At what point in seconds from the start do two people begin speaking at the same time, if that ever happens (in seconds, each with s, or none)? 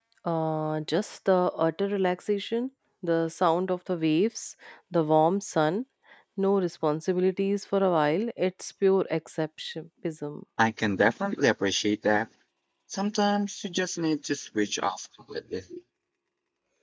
none